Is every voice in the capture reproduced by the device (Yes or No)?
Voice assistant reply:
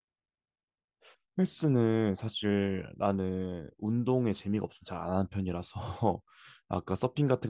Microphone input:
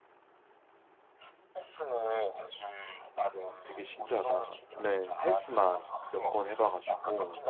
No